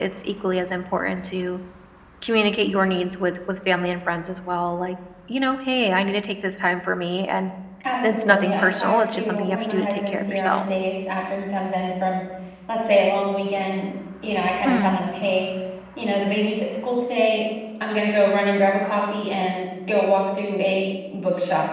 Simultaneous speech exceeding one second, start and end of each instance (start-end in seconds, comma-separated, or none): 8.1-10.6